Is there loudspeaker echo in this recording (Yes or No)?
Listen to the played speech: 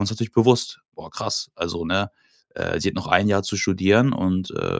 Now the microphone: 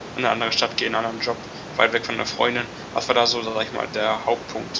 No